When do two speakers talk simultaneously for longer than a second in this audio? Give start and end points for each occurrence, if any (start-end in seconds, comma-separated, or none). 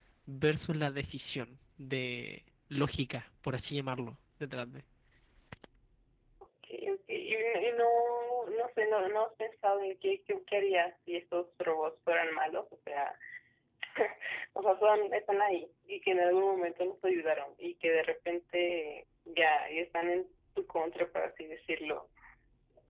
none